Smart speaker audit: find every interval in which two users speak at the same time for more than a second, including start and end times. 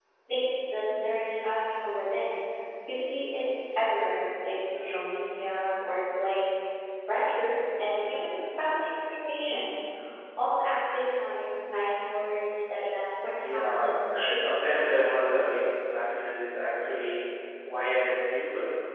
13.4-14.8

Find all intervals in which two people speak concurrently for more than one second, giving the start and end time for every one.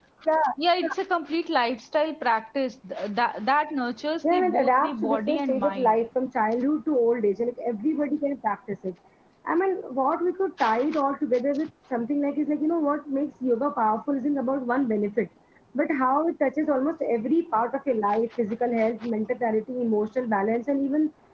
4.3-6.0

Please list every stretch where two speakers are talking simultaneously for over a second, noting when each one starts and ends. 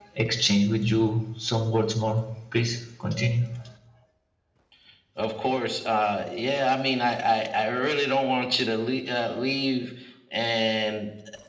none

